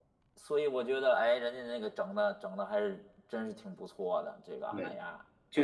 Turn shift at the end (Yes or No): Yes